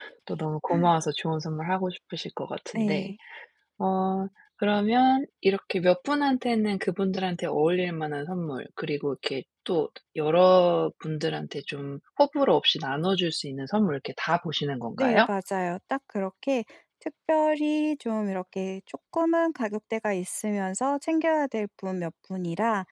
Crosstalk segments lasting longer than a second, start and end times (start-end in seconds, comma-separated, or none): none